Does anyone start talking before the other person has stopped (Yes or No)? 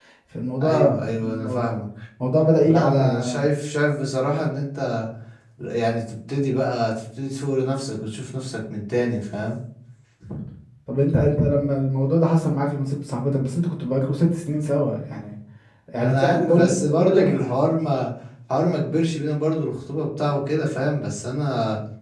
Yes